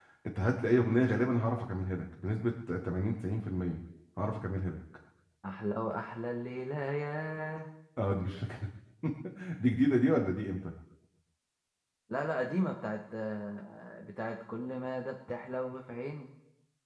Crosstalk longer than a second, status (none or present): none